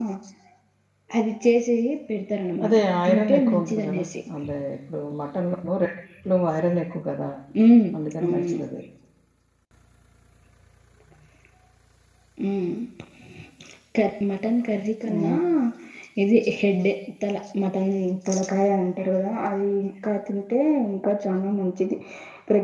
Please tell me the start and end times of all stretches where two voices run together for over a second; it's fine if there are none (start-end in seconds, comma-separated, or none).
2.6-4.1